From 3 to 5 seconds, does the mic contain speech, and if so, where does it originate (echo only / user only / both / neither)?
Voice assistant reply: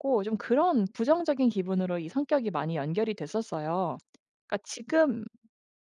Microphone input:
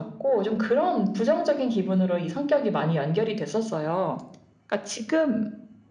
echo only